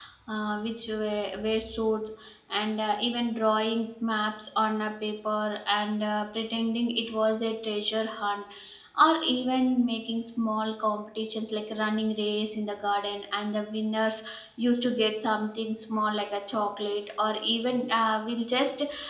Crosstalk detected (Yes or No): No